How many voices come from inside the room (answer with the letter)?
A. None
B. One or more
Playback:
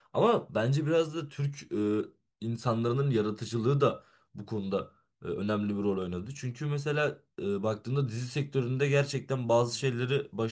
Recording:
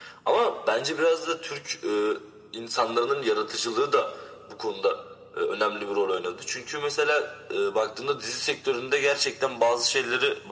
A